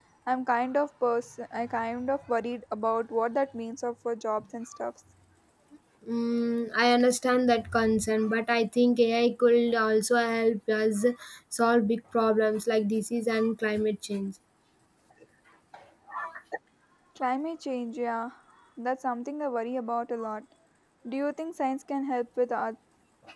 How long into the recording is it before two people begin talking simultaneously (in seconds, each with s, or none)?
none